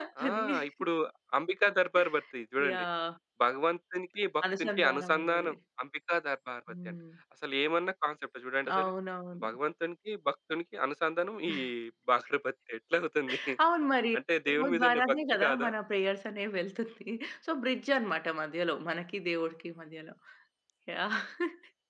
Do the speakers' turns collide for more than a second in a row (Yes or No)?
Yes